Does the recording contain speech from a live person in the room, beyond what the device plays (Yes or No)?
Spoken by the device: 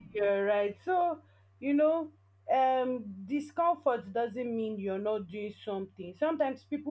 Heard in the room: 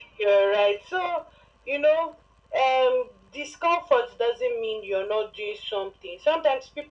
No